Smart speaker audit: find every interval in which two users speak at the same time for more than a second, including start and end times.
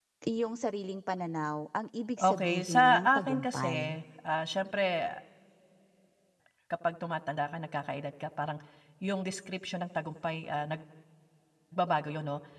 2.2-4.0

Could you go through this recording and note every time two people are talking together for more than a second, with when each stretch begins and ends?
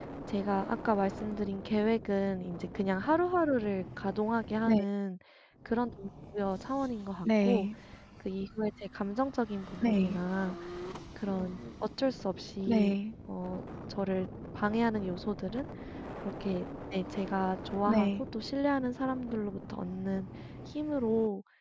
none

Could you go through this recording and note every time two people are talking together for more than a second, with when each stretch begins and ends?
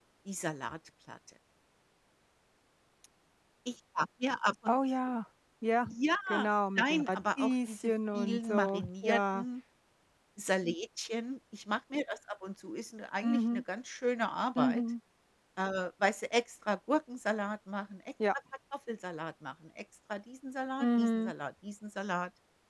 6.8-9.4

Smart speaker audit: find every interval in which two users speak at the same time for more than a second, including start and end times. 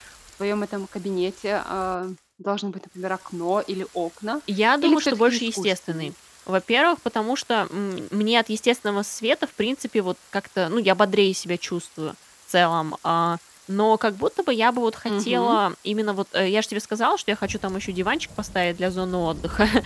4.8-6.1

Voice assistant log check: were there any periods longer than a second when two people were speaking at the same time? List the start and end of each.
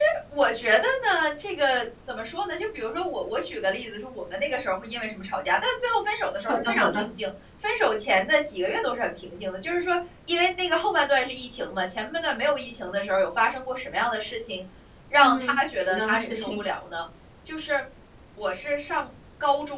15.2-16.6

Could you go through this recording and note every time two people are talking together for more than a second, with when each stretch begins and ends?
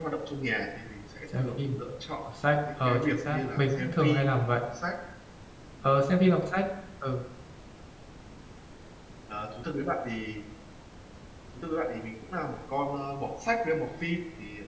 2.9-4.5

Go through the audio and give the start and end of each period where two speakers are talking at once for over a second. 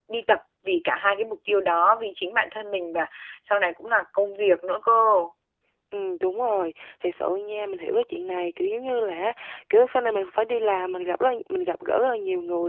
none

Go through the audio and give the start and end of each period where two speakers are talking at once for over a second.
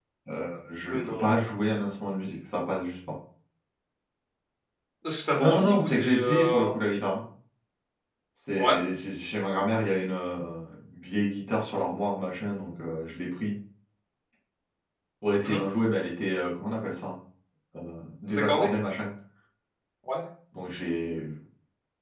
5.3-6.7

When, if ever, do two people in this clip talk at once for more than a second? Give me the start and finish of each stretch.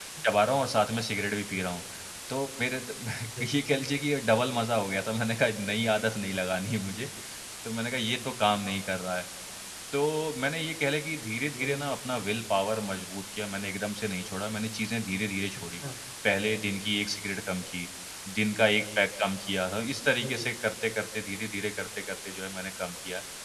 none

